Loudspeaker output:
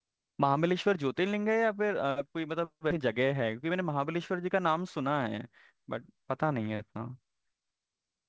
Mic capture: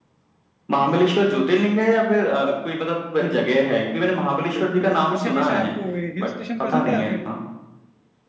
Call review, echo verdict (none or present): present